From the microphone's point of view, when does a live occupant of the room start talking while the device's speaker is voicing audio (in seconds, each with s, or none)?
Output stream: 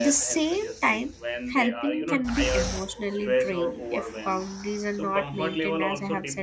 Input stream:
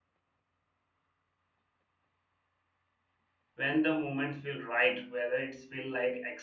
3.6 s